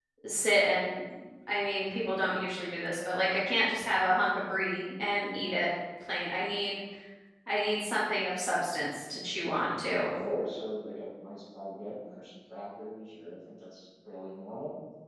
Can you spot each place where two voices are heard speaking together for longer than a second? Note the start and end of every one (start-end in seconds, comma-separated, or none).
none